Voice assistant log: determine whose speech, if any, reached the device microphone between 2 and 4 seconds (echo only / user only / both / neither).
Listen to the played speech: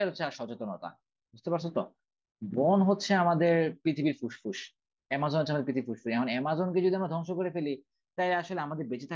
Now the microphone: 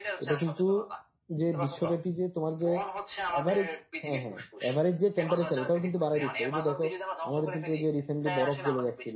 both